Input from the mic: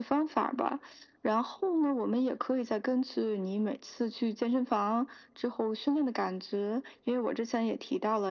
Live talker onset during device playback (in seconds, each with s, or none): none